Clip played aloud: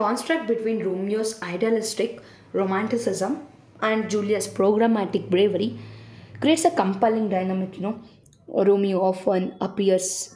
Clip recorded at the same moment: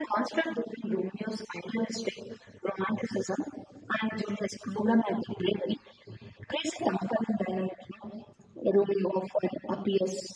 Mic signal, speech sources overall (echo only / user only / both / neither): echo only